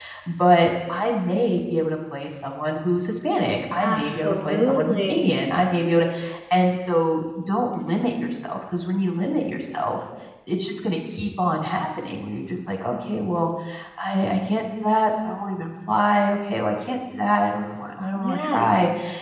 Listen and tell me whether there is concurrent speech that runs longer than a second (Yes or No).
Yes